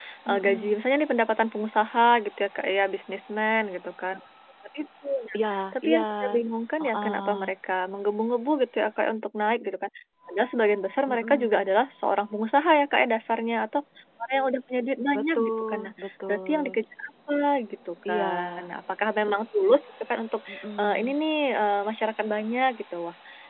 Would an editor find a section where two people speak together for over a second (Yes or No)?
Yes